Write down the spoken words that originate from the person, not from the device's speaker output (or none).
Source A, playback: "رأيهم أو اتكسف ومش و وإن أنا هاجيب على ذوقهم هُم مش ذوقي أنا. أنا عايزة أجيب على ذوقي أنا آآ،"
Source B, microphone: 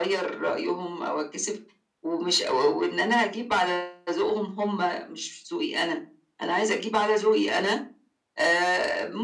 none